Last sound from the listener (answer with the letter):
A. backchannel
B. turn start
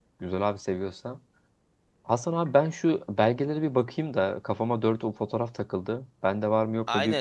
B